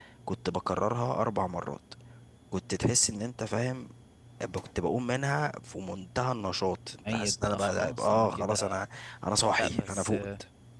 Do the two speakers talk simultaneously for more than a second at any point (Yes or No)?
Yes